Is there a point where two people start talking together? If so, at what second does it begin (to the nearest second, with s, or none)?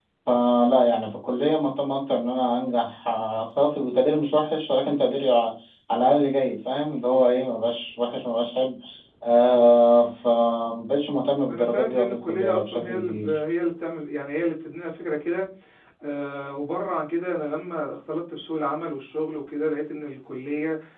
11 s